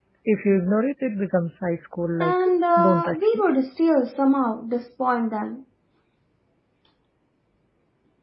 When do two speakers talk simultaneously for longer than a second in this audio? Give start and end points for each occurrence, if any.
2.2-3.4

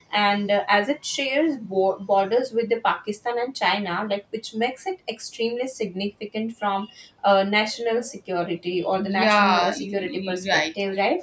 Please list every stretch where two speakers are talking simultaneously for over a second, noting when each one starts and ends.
9.0-10.6

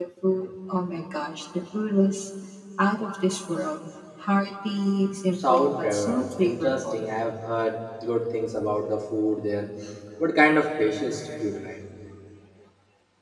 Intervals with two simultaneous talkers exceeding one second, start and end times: 5.5-7.0

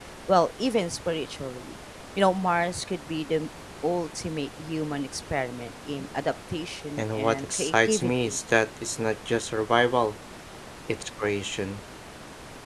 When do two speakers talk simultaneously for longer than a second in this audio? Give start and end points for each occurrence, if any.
7.0-8.4

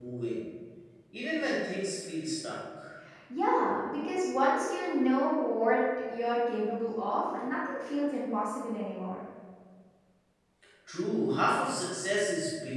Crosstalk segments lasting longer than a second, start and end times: none

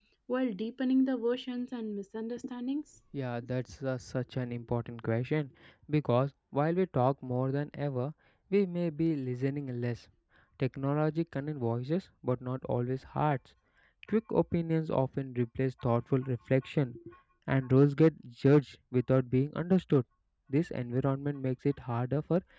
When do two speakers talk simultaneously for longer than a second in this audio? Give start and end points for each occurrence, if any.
none

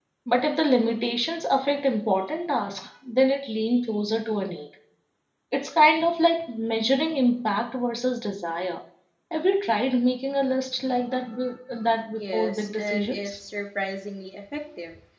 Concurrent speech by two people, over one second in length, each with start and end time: 12.2-13.4

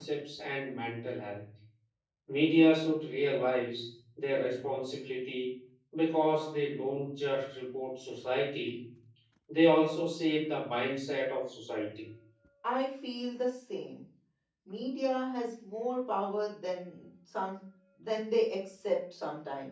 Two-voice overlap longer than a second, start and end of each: none

